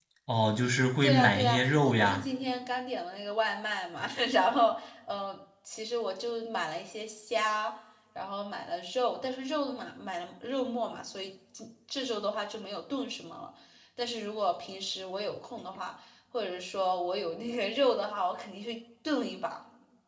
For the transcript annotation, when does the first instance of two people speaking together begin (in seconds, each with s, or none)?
1.0 s